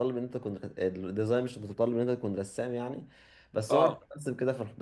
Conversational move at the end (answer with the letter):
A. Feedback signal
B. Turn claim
A